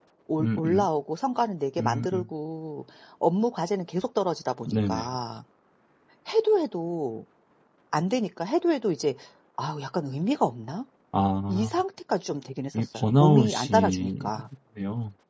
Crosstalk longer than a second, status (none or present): present